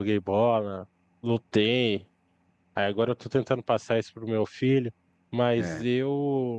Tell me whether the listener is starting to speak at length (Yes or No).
No